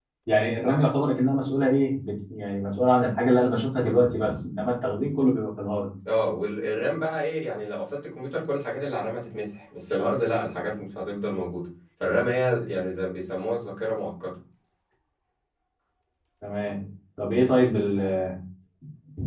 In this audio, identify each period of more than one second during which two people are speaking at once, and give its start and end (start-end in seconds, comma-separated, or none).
none